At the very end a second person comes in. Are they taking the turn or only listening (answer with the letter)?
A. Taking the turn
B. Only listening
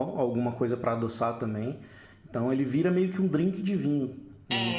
A